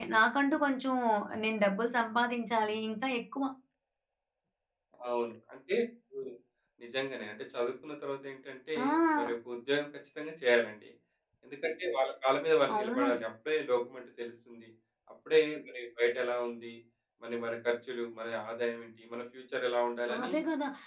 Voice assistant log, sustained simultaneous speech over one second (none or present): none